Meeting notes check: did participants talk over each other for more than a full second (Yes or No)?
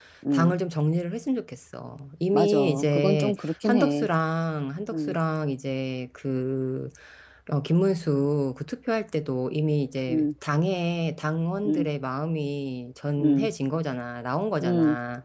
Yes